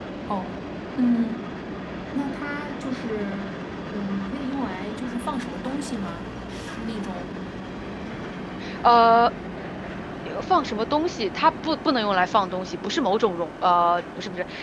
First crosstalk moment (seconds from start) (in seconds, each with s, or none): none